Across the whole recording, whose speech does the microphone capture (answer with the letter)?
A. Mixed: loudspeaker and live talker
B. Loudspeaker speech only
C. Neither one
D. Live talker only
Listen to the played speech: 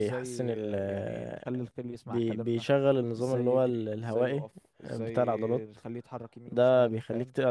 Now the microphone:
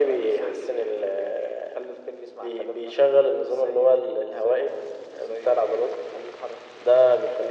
B